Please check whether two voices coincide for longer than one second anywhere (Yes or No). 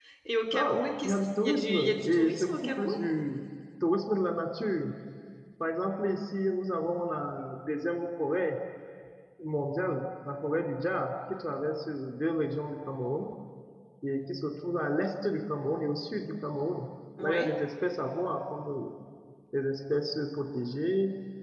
Yes